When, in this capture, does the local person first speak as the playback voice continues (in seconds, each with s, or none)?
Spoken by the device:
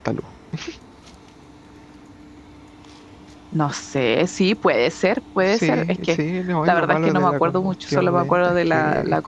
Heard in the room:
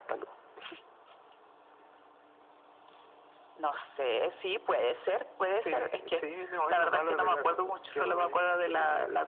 none